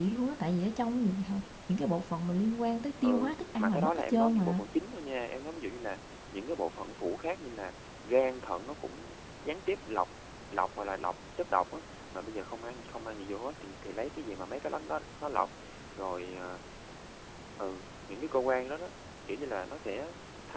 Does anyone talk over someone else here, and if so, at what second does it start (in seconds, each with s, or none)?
3.0 s